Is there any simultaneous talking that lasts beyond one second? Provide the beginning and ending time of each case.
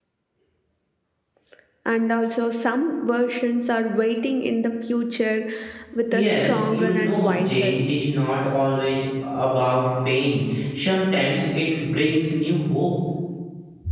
6.1-7.8

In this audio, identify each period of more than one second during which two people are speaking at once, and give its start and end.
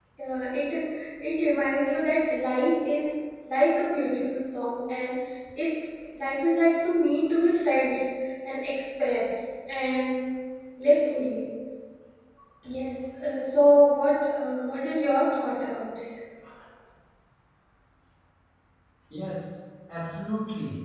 none

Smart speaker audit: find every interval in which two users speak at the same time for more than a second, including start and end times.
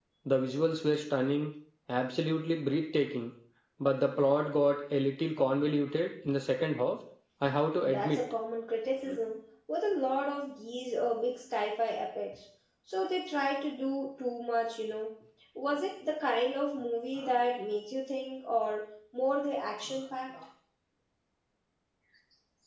none

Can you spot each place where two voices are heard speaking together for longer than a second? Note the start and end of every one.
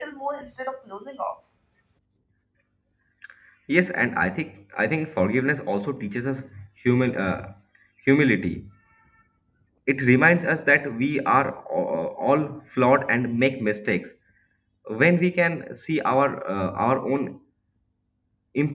none

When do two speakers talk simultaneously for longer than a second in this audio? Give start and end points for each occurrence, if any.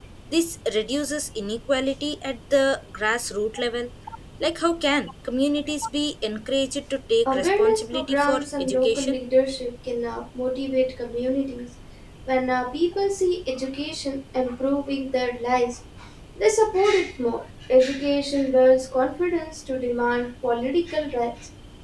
7.3-9.2

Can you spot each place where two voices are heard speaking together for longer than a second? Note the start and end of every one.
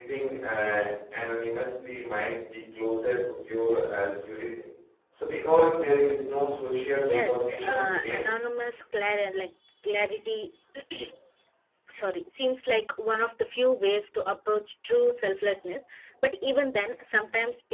7.0-8.4

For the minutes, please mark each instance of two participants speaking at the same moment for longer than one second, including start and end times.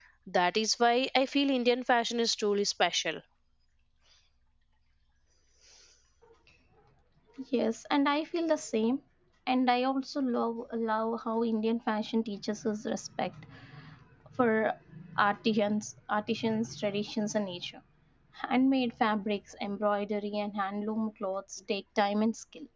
none

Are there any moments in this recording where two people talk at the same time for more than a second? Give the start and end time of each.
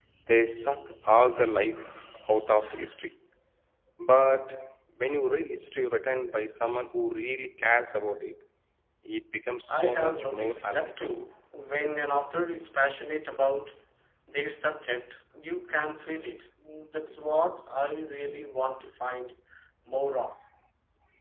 9.7-10.9

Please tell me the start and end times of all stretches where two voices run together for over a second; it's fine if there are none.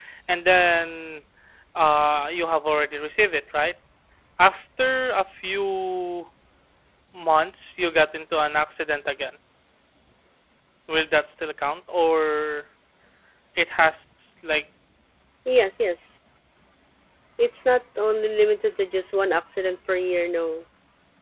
none

